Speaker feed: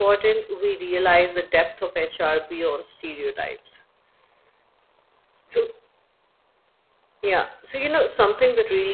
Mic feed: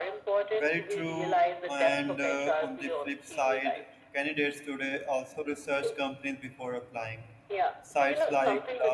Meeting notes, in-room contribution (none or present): present